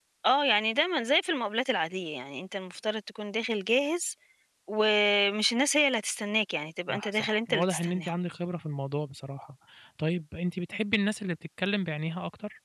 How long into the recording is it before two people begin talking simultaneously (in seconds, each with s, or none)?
6.9 s